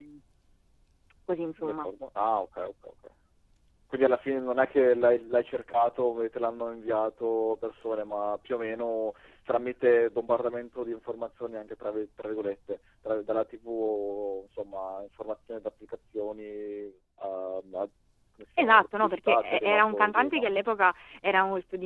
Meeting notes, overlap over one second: present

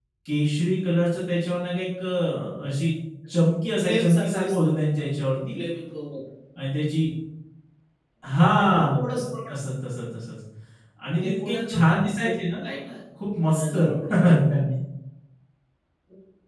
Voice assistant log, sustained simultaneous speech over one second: present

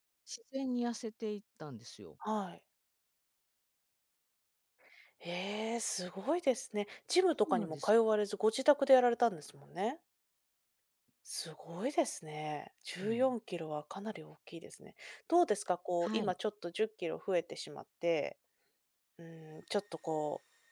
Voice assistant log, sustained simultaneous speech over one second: none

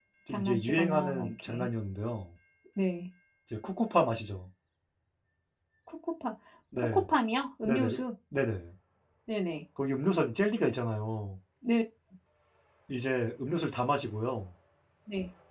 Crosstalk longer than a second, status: present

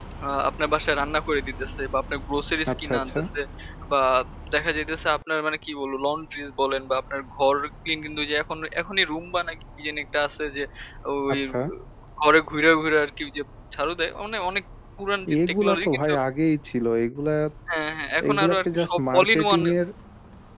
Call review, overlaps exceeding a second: present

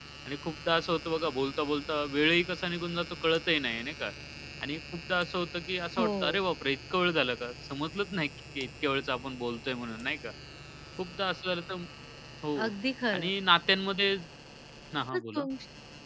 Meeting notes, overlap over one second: none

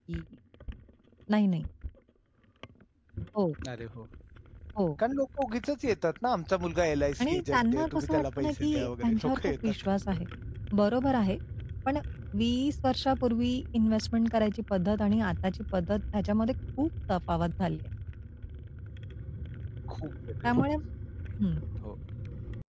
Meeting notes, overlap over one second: present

